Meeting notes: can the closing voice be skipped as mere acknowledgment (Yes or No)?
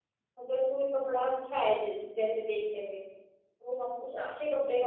Yes